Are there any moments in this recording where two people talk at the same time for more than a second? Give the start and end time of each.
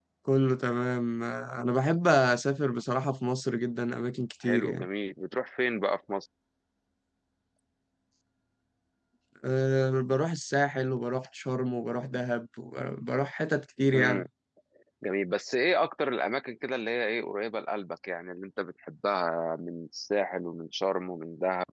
none

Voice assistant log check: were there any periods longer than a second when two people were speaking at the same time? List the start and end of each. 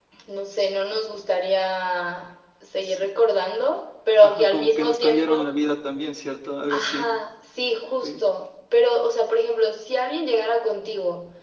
4.2-5.5

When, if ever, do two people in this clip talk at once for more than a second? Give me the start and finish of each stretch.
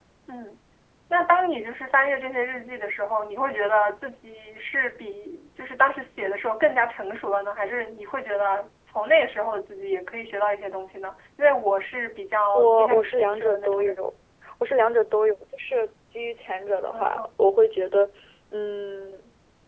12.5-14.0

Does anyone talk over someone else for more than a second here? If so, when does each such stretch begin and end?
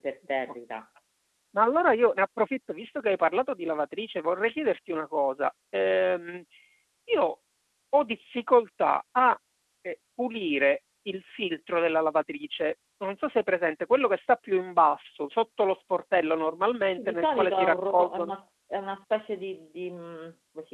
17.0-18.3

